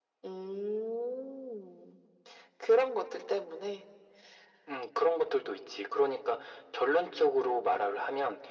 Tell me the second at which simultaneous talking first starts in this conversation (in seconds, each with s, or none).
none